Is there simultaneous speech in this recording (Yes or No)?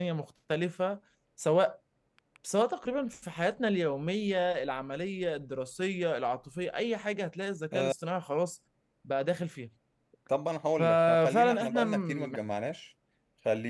Yes